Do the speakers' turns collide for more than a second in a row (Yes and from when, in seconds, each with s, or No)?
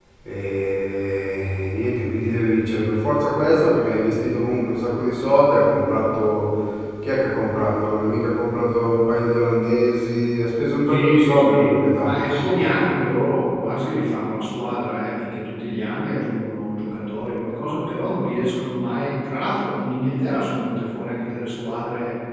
Yes, from 10.9 s